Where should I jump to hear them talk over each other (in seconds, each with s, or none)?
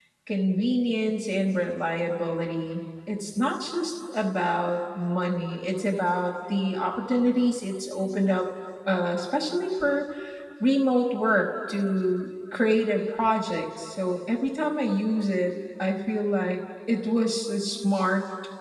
none